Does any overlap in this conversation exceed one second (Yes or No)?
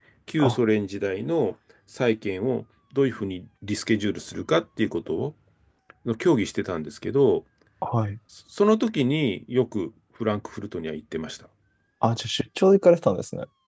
No